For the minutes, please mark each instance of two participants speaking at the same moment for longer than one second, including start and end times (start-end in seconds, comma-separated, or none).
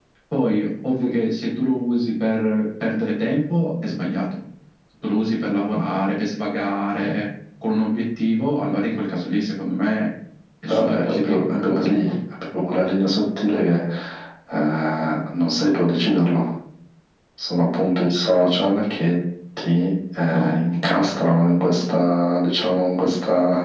10.7-12.0